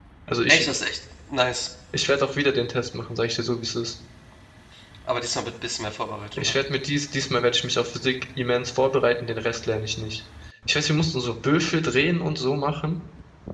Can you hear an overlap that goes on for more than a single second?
No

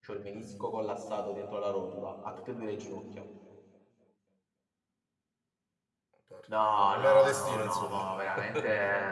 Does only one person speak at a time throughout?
No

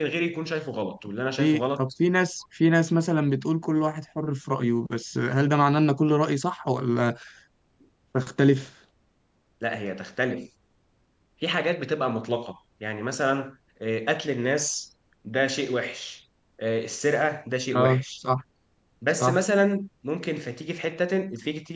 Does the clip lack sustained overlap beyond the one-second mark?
Yes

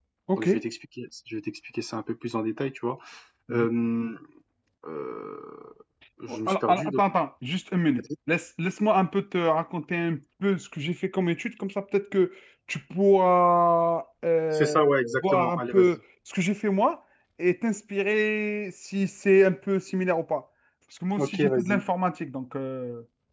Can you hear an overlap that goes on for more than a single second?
Yes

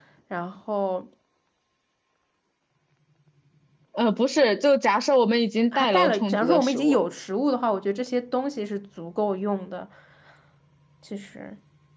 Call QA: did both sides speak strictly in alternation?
No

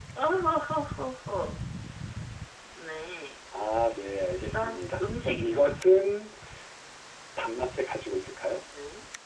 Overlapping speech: Yes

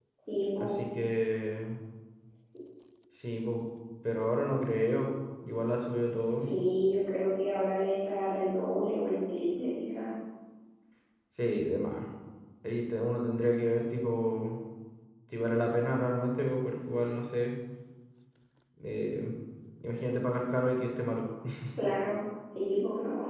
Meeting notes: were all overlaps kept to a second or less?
Yes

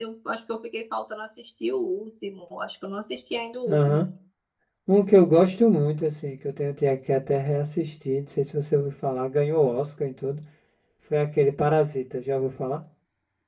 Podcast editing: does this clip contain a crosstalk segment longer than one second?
No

